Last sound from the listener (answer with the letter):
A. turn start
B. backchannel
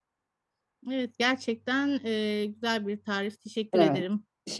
A